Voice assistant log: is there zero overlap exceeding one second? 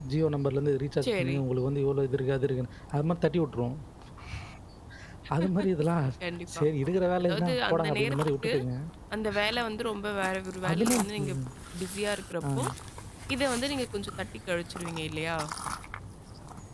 No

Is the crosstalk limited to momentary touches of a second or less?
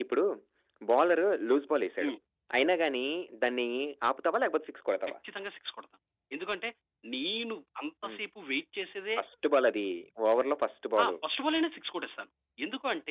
Yes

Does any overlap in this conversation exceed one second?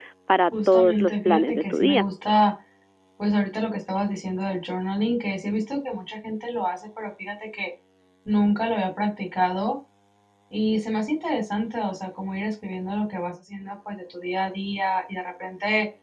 Yes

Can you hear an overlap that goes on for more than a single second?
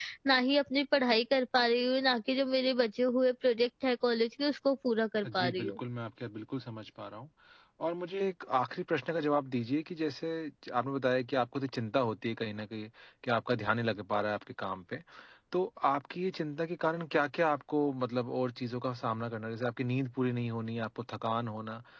No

